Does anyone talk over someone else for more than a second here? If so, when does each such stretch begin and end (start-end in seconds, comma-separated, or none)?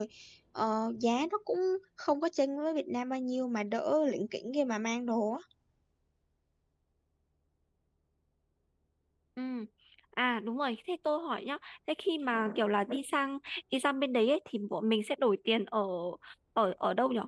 none